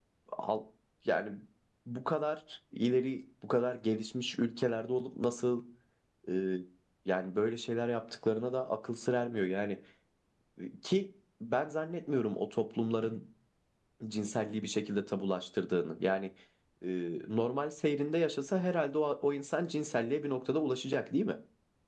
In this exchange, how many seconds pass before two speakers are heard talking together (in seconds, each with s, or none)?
none